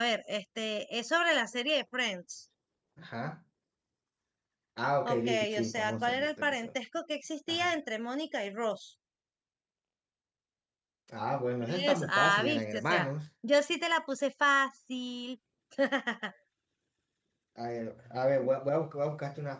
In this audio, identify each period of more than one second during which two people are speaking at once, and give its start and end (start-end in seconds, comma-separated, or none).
5.0-6.7, 11.9-13.1